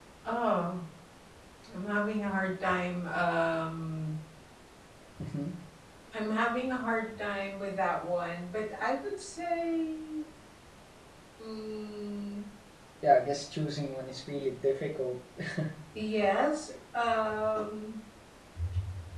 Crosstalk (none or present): none